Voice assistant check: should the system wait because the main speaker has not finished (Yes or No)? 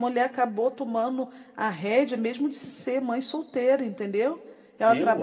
Yes